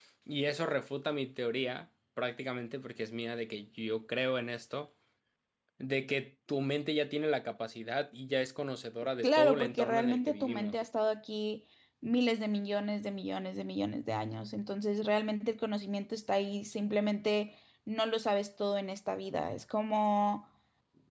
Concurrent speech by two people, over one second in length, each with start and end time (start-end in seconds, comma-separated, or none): 9.2-10.8